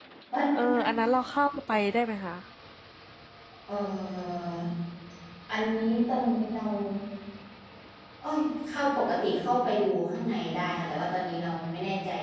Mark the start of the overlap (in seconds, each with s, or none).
none